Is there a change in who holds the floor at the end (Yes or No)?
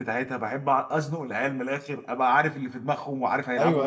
Yes